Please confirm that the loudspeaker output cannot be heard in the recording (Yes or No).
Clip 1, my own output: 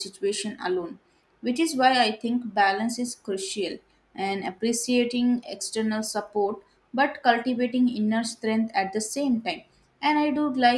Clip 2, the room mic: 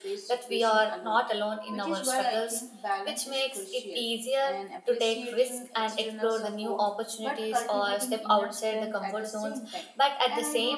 No